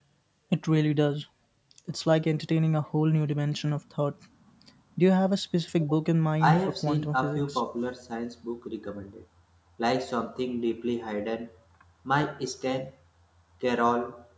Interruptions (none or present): present